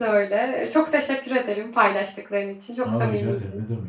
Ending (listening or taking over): taking over